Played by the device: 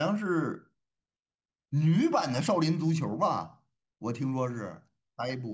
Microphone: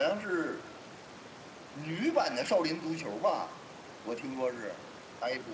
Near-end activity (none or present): none